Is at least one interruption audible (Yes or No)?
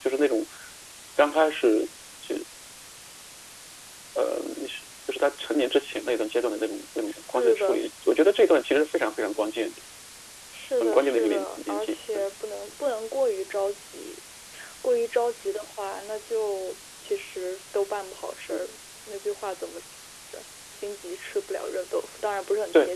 Yes